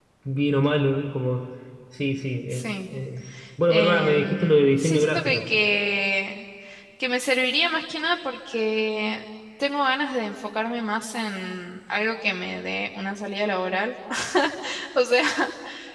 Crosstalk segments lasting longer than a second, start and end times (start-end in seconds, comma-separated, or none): 3.7-5.4